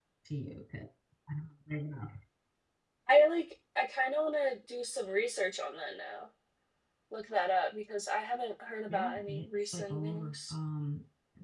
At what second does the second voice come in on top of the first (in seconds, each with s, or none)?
8.9 s